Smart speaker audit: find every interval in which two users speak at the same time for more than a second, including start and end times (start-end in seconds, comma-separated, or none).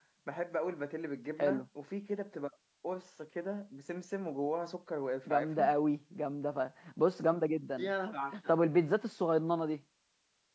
none